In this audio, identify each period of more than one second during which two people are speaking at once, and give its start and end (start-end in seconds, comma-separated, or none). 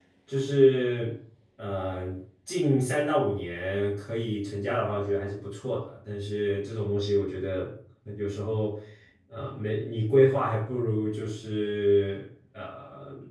none